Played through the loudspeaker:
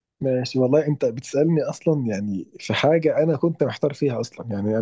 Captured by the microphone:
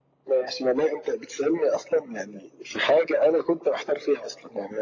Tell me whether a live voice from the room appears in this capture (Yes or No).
No